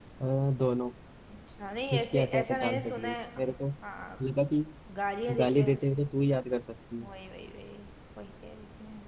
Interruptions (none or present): present